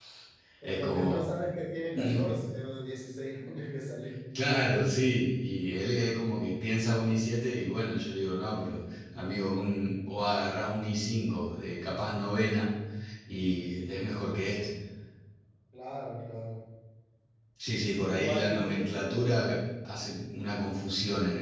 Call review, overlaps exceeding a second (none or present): present